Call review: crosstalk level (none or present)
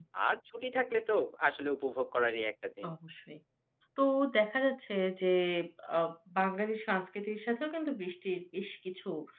none